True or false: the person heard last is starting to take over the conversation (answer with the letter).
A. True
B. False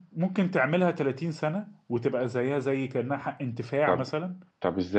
A